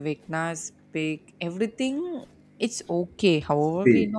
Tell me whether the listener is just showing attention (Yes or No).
Yes